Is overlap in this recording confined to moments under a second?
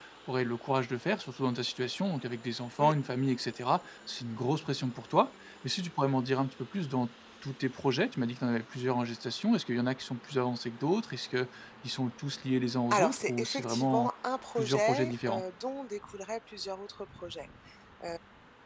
No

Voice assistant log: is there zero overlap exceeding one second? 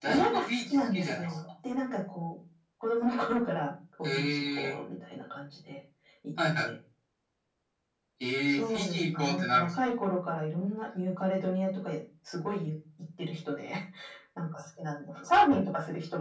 No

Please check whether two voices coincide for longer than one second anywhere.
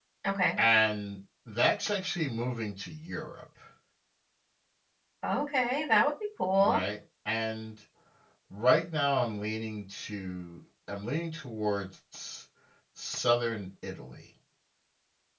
No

